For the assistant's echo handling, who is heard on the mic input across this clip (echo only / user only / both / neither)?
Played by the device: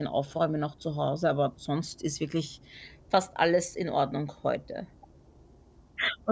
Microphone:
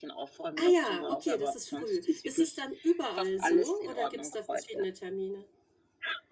both